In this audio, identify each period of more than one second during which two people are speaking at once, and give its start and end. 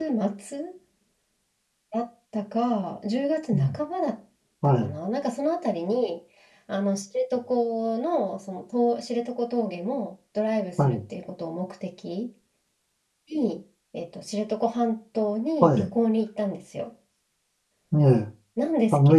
none

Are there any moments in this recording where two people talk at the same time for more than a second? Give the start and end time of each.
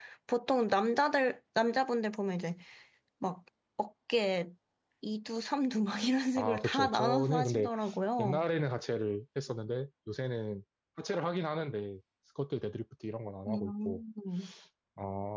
6.4-7.7

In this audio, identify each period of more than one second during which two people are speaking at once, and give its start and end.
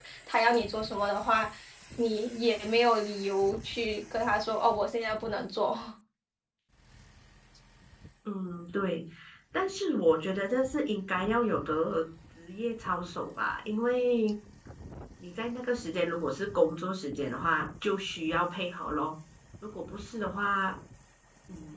none

